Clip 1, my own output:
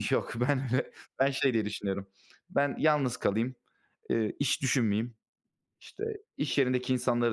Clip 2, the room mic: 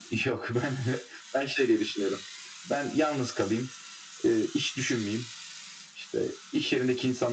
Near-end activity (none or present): none